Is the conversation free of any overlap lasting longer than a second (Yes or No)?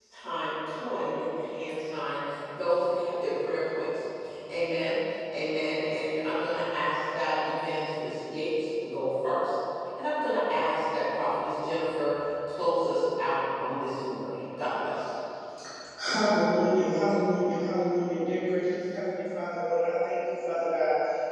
Yes